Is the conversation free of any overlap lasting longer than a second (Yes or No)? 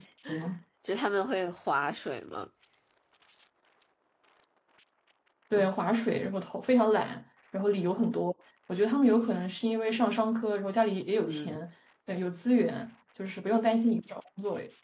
Yes